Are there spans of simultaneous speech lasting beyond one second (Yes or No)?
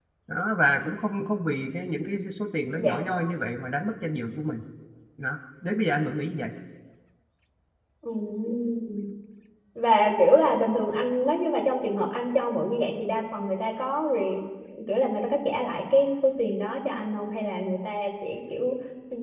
No